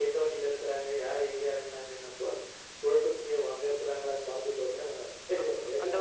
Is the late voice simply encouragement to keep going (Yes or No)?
No